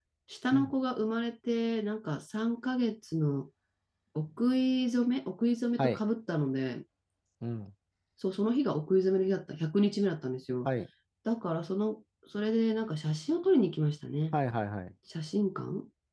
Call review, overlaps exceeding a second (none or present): none